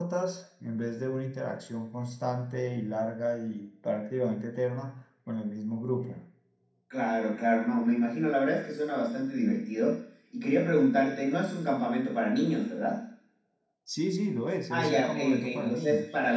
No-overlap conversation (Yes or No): No